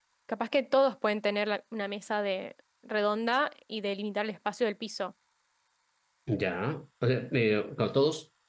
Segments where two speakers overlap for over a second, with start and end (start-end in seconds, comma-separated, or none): none